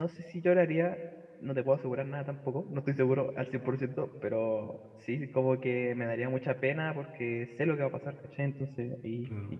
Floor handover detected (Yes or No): No